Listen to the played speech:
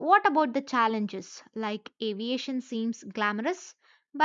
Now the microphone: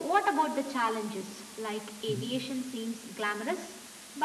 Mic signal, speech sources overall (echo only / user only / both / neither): both